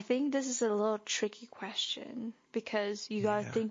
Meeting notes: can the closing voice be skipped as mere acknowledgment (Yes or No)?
Yes